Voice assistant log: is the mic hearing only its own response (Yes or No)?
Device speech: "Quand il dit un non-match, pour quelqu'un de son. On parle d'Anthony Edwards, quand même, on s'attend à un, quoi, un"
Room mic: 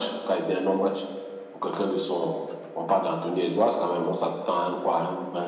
Yes